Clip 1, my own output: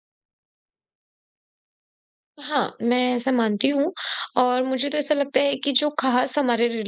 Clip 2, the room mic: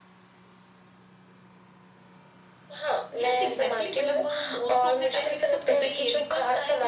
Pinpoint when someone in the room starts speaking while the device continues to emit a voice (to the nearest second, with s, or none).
3 s